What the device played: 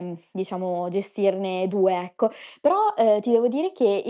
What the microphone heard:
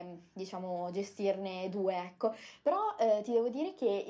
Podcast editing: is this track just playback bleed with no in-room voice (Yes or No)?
Yes